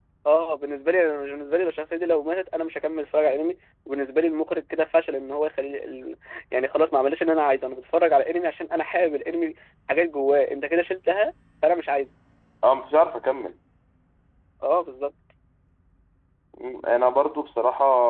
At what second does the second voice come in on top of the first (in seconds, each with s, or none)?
none